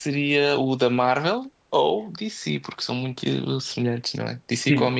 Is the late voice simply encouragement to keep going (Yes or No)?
No